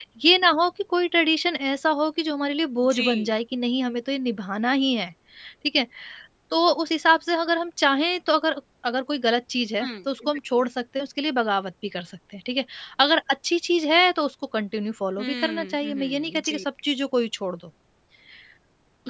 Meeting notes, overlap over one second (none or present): present